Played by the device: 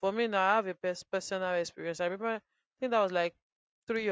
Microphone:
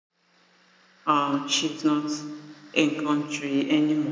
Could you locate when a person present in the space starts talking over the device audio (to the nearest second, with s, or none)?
1 s